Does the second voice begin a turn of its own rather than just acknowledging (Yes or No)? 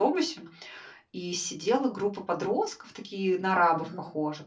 No